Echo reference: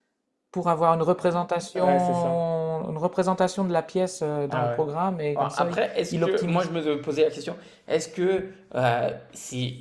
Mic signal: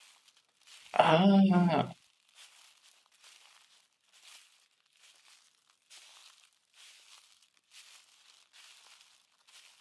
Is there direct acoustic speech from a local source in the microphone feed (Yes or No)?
Yes